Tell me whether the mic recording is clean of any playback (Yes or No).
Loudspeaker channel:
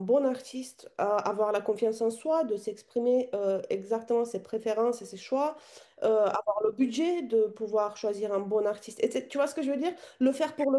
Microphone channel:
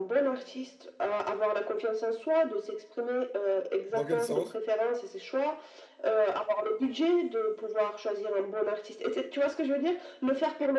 No